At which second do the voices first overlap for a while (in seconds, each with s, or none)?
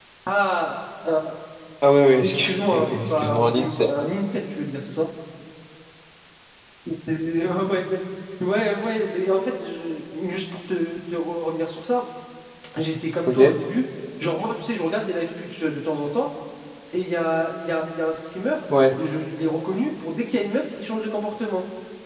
2.2 s